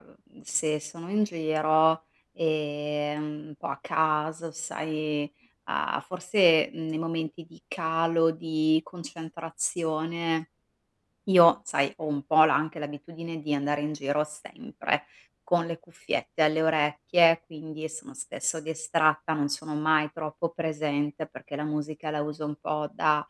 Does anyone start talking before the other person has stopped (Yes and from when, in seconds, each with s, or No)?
No